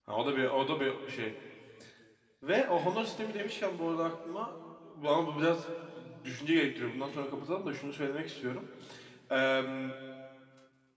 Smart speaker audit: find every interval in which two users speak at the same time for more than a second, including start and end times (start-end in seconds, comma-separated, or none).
none